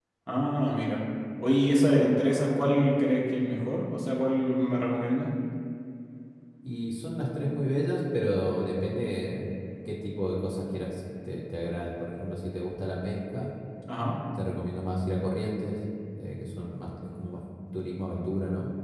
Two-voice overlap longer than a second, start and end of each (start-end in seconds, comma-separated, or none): none